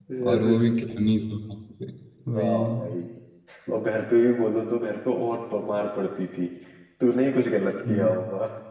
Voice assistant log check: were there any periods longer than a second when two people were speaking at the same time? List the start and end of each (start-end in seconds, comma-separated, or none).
none